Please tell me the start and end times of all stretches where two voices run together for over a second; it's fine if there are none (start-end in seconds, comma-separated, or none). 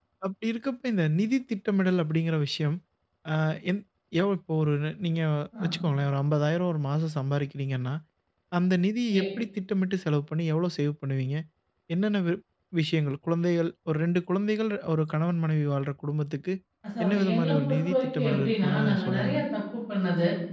17.0-19.4